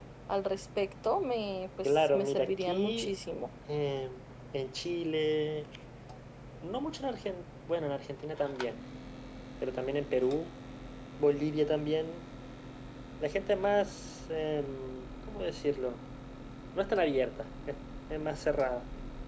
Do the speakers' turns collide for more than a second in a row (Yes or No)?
Yes